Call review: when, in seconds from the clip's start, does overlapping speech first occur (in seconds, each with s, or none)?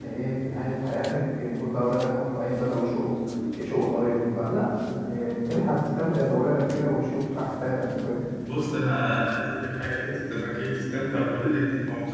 none